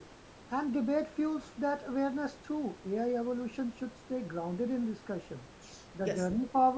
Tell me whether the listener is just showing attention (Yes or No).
Yes